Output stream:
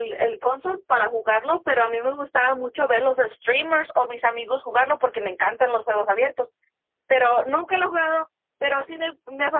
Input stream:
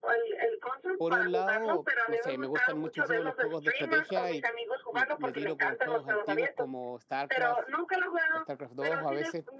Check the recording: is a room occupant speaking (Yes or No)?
Yes